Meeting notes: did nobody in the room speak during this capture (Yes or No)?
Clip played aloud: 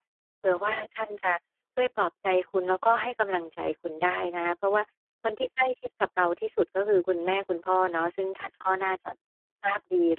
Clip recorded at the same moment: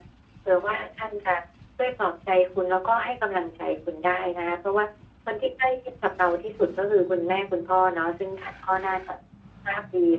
Yes